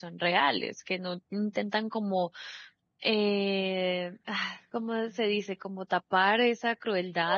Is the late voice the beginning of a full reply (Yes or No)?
No